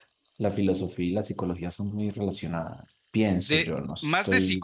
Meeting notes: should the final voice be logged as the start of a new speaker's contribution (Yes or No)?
Yes